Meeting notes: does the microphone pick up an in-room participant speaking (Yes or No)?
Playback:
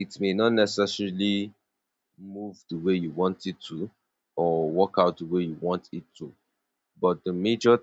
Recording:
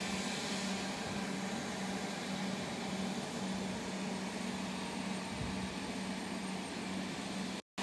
No